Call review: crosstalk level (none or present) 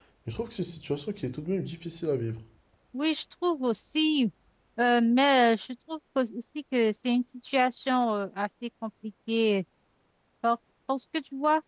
none